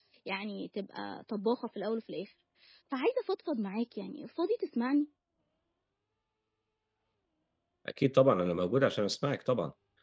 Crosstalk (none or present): none